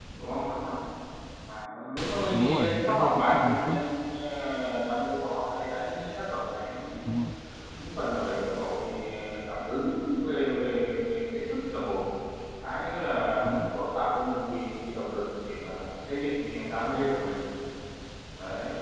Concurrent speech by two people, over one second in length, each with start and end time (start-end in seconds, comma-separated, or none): 2.3-3.8